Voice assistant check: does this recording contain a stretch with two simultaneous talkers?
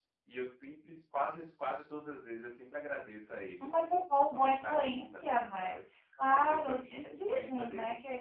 Yes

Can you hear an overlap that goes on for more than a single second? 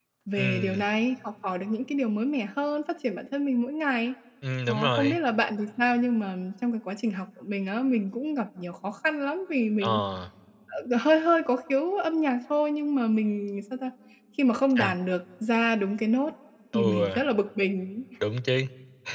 No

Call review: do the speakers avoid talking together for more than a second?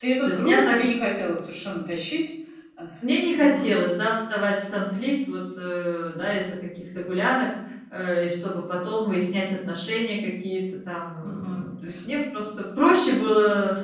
Yes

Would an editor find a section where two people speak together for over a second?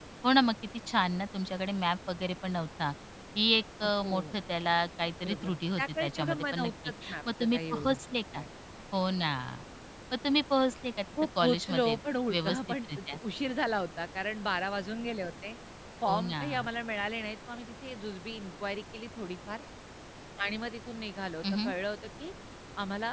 Yes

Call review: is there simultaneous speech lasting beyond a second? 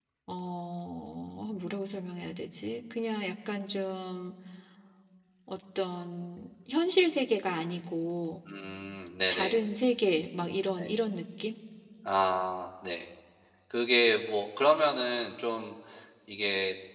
No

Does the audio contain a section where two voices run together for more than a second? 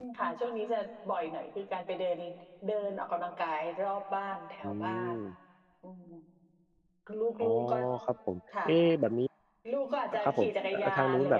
Yes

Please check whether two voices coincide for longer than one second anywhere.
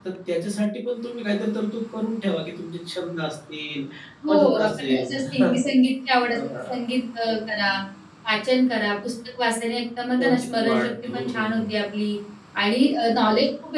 Yes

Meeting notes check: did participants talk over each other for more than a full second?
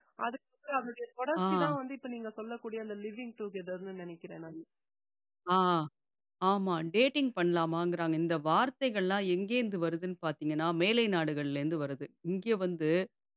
No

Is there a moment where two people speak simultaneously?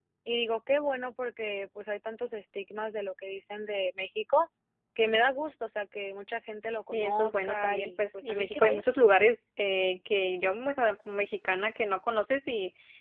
Yes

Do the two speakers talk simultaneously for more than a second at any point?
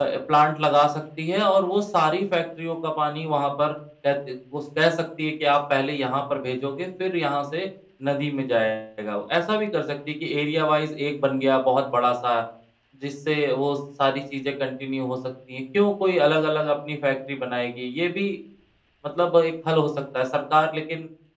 No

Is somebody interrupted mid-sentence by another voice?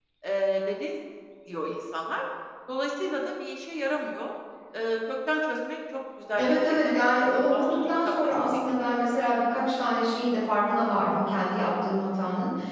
Yes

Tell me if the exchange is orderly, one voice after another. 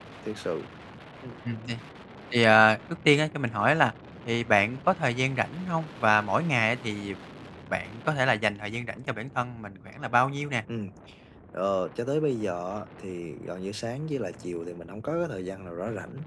Yes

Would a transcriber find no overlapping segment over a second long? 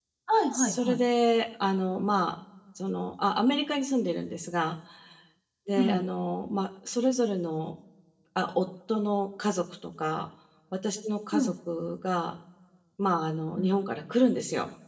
Yes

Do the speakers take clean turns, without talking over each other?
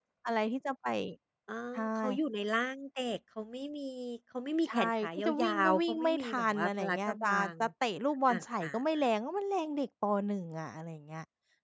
No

